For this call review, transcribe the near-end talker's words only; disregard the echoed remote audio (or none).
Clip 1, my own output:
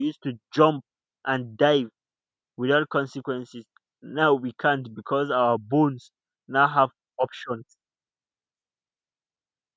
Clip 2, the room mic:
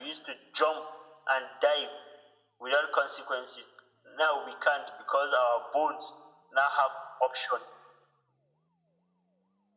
none